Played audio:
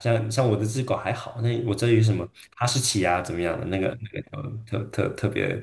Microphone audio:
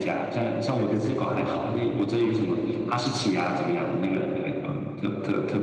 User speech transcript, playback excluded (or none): 对对对，有毛的那个不一样。嗯，